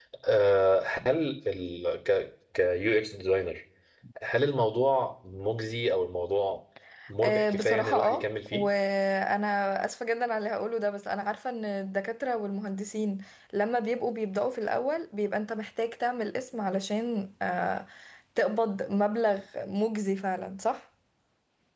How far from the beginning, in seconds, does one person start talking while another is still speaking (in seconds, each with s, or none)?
7.2 s